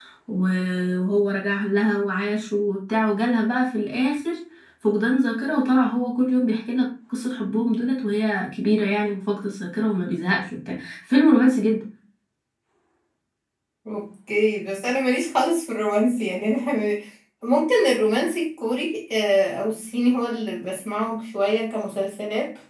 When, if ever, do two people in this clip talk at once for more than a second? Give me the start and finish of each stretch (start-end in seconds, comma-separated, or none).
none